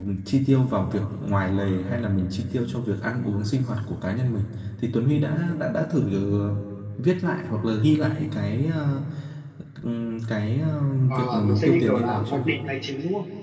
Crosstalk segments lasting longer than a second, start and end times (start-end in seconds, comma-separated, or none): 11.1-12.4